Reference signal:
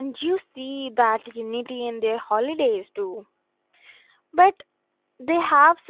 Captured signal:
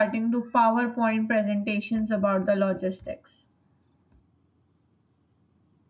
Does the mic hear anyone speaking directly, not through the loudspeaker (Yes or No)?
Yes